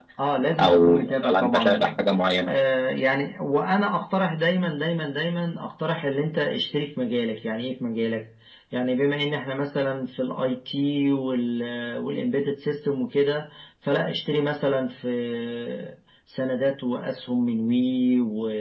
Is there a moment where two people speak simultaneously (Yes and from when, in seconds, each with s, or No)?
Yes, from 0.6 s